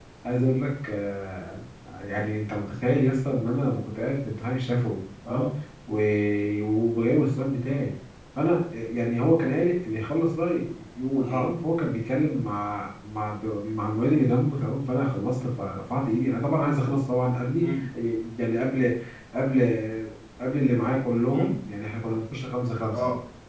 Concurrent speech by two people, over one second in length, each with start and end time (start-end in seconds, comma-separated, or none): none